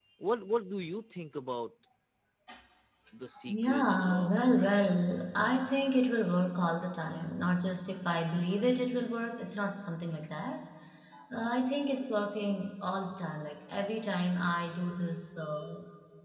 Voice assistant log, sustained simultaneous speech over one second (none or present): present